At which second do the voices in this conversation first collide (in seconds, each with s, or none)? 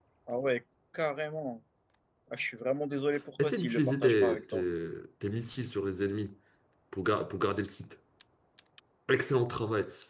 3.4 s